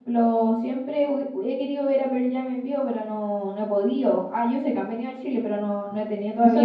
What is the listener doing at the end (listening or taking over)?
taking over